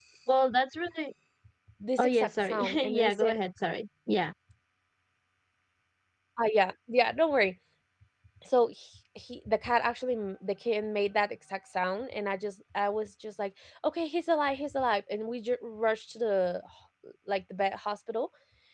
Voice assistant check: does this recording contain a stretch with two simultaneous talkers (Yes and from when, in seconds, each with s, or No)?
Yes, from 2.0 s